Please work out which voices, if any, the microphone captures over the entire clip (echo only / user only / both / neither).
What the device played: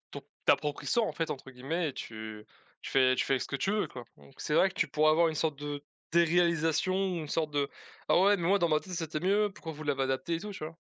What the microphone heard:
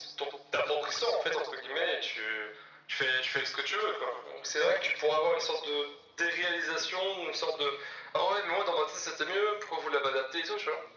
echo only